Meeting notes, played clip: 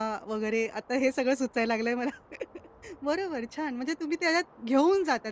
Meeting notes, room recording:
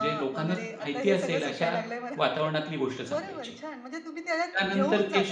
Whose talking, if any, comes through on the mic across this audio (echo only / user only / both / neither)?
both